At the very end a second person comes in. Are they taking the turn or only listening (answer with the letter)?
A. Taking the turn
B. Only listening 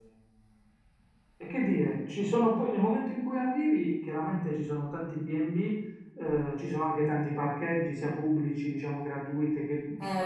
A